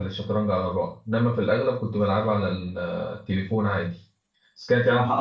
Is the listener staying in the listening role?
No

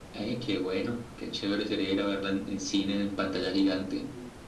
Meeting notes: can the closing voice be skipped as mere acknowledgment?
No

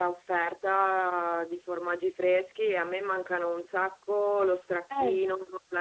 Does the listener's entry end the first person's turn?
No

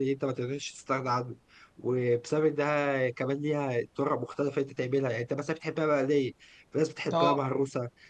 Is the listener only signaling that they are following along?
Yes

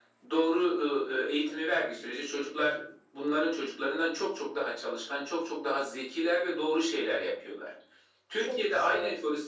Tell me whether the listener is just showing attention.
Yes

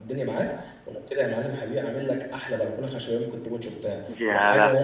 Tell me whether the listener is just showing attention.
No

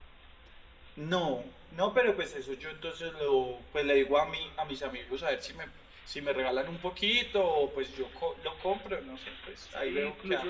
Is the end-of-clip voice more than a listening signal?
Yes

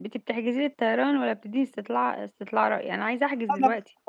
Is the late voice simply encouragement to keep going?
No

